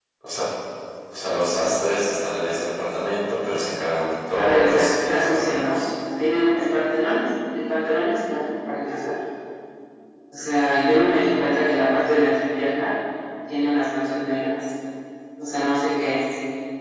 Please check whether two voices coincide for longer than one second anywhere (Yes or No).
Yes